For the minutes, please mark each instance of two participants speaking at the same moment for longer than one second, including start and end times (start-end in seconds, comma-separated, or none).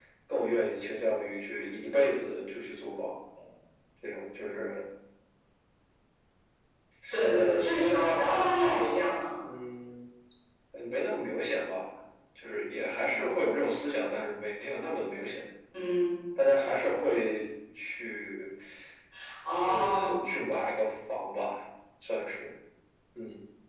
7.3-8.6